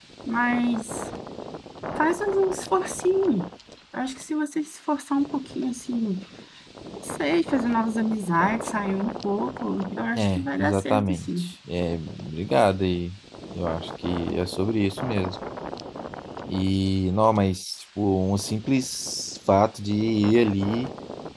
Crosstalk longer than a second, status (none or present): present